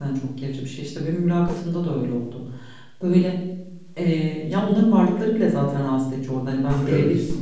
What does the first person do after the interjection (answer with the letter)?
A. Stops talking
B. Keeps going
B